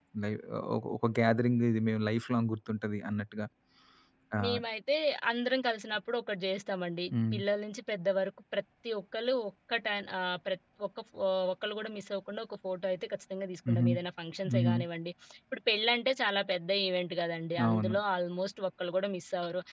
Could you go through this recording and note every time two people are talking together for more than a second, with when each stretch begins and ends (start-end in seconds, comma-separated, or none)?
none